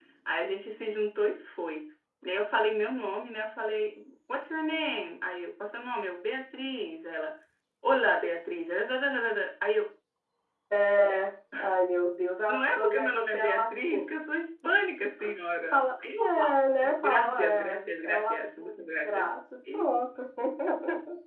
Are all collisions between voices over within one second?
No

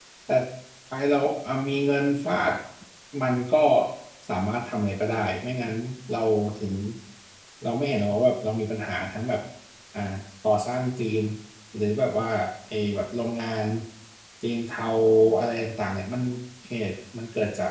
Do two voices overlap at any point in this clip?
No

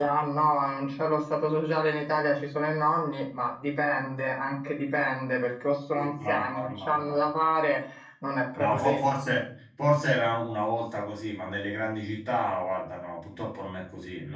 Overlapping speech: Yes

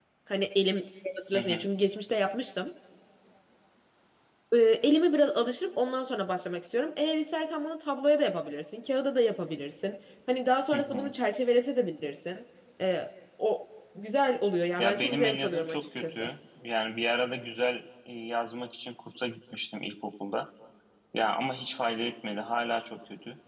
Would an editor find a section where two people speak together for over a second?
Yes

